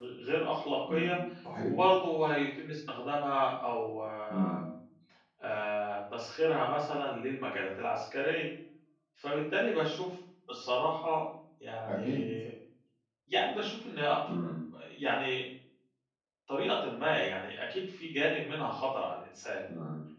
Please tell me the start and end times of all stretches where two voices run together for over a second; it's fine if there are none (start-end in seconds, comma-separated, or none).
none